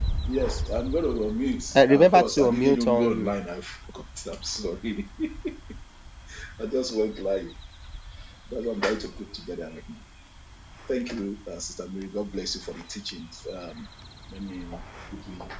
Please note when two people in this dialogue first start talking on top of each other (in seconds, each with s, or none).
1.8 s